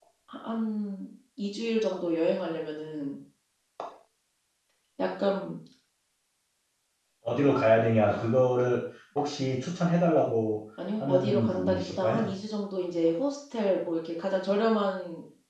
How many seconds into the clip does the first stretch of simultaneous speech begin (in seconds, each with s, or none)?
11.0 s